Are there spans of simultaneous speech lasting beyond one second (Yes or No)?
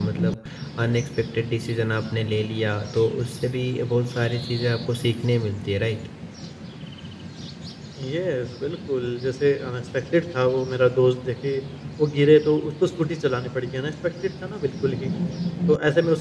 No